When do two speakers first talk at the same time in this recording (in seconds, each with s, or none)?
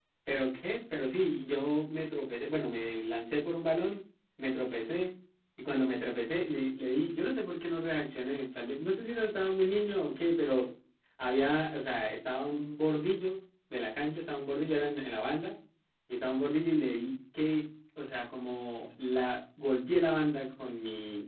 none